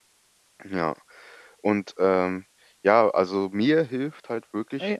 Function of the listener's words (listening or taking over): listening